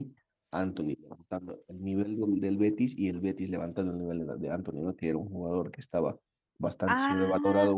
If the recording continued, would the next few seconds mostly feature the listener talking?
No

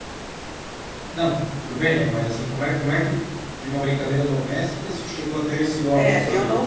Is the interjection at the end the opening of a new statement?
Yes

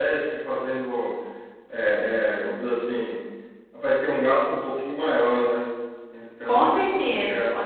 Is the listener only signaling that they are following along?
No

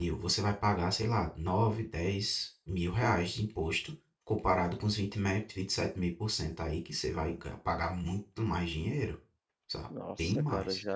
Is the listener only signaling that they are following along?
No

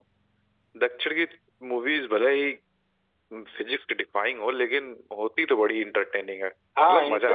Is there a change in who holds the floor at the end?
Yes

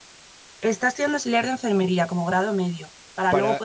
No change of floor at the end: Yes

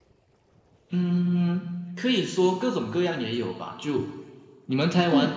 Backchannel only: Yes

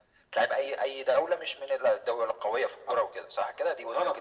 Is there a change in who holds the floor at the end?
Yes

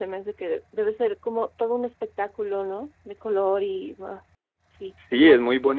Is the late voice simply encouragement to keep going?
No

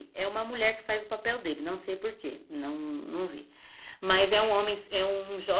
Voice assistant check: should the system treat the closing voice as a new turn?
No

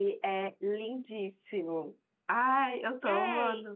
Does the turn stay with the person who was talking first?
No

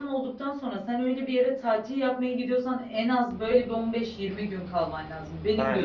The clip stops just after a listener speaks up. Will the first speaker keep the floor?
No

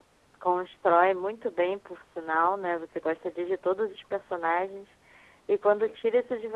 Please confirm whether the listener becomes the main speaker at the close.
No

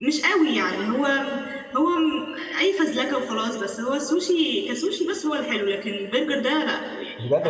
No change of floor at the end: No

